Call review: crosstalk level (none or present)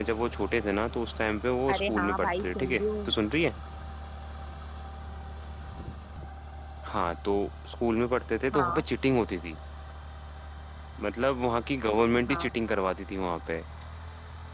present